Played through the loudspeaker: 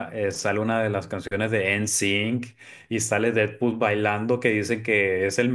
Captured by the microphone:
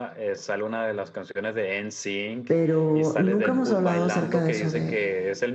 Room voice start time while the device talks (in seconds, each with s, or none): 2.5 s